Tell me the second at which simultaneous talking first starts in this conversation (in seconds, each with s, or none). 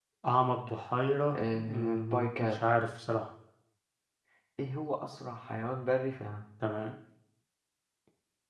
1.3 s